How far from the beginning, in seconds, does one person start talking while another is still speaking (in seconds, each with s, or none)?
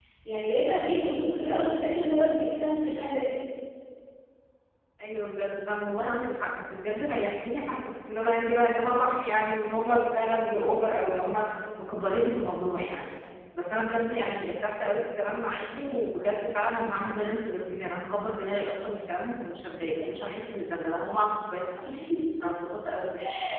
none